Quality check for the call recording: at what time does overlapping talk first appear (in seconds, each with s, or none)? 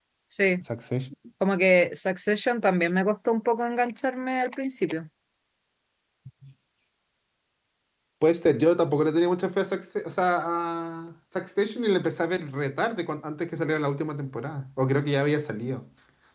none